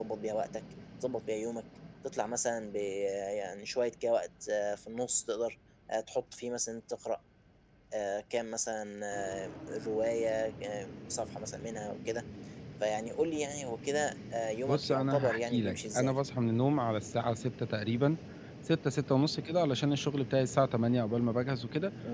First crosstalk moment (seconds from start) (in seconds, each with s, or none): 14.7 s